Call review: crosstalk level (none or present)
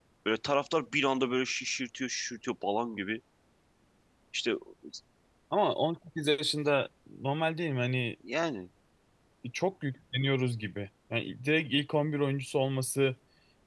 none